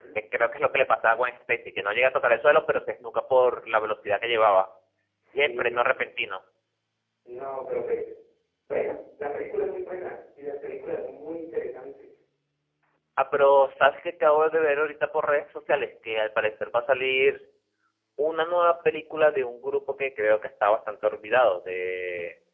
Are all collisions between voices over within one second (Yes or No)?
Yes